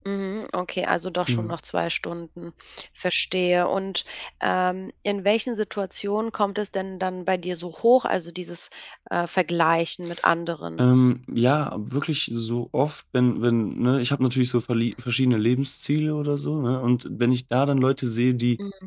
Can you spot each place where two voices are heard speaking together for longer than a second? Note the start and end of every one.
none

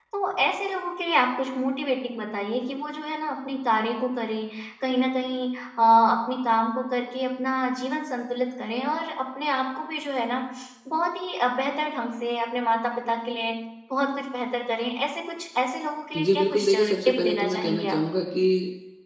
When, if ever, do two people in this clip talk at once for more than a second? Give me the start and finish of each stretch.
16.1-18.0

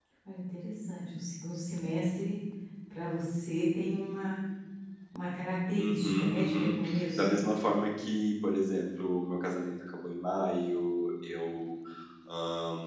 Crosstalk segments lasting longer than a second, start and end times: 5.8-7.3

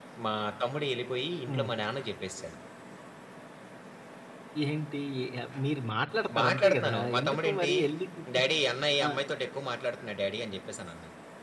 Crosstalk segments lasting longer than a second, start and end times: 6.4-7.7

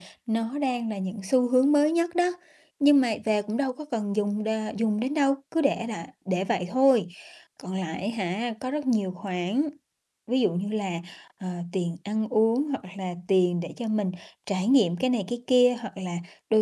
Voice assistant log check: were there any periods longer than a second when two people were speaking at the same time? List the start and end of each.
none

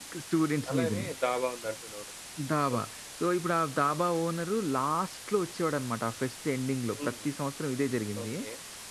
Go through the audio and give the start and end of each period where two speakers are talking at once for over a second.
none

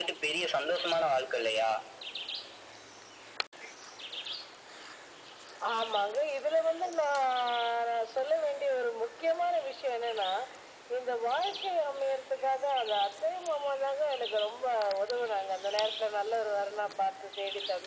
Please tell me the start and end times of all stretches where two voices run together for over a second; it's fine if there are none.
none

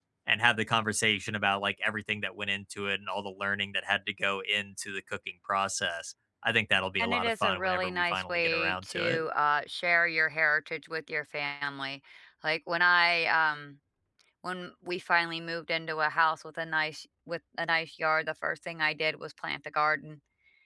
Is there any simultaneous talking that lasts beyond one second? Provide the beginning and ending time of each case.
7.0-9.2

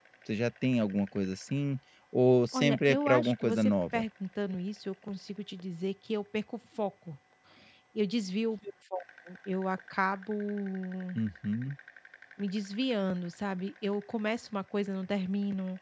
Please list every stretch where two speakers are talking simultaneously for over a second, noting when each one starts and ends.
2.5-4.0

